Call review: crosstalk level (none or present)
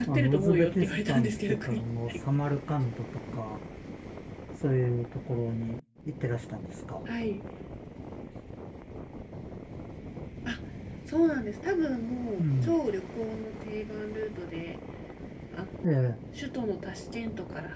present